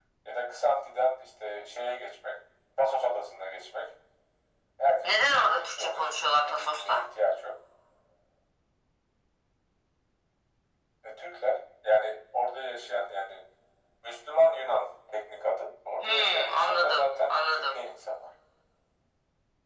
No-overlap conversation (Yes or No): No